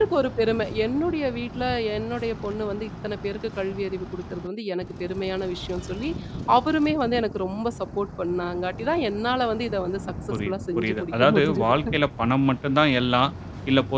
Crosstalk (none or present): present